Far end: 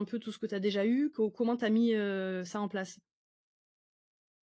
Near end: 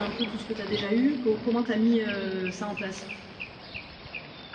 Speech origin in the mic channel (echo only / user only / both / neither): echo only